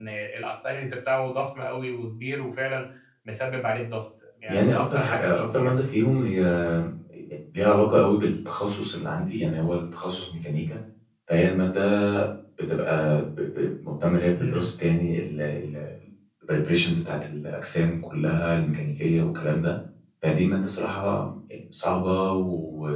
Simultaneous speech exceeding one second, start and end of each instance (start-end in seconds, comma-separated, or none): 4.5-5.7